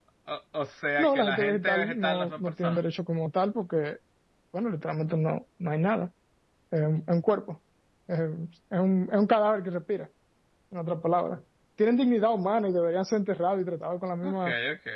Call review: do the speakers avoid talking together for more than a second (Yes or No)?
No